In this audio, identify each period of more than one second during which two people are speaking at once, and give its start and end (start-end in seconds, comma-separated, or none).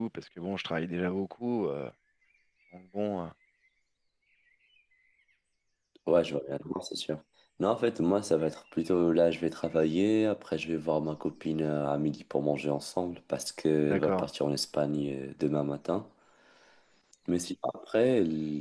none